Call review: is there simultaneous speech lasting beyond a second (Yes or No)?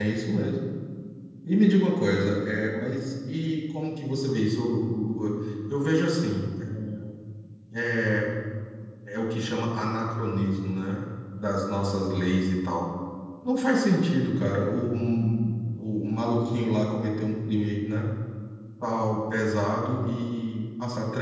No